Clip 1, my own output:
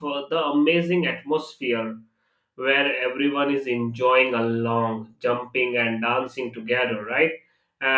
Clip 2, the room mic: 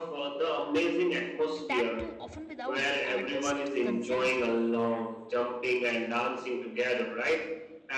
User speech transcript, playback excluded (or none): and that too often without the artist consent.